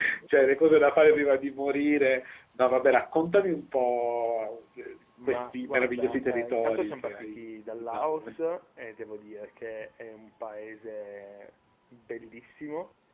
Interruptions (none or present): present